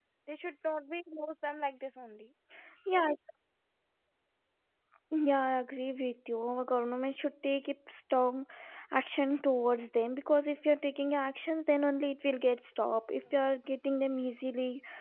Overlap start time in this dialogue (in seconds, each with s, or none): none